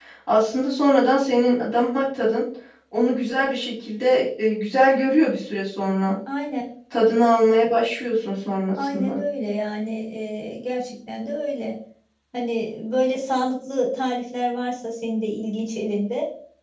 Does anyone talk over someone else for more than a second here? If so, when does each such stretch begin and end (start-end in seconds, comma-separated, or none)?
none